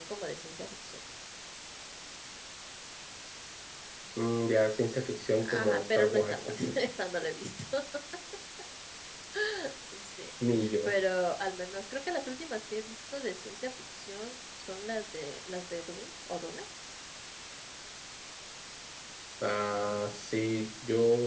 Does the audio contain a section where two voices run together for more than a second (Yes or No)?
Yes